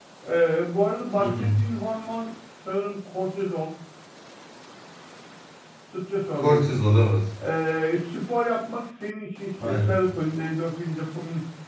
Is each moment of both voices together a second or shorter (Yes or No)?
Yes